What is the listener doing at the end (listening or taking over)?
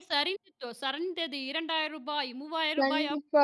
taking over